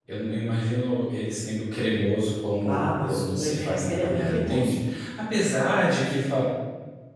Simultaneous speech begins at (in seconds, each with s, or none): 2.6 s